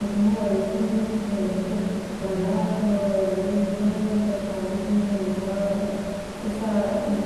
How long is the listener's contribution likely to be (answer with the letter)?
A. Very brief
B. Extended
A